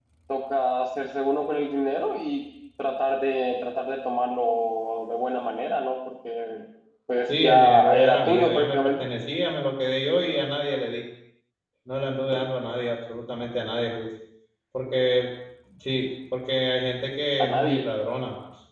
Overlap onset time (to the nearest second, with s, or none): 7 s